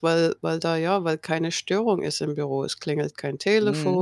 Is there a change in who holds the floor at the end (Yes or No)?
No